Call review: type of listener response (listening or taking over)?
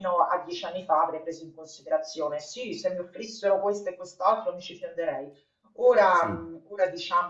listening